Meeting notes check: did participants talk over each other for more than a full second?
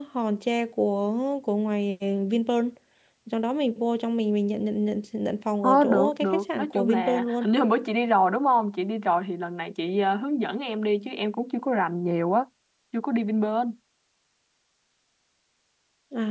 Yes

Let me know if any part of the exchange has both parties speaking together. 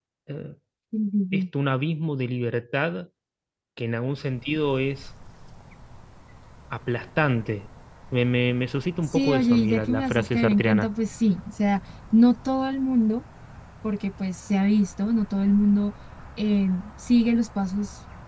Yes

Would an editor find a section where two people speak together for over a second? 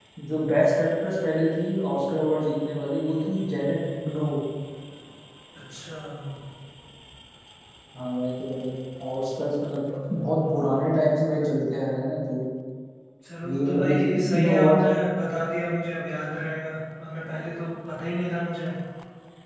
Yes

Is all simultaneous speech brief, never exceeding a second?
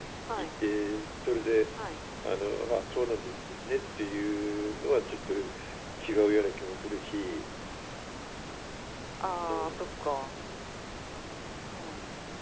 Yes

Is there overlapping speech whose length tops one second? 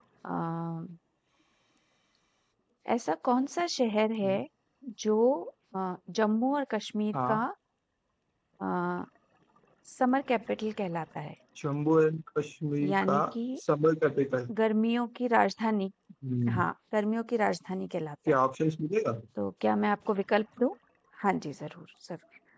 No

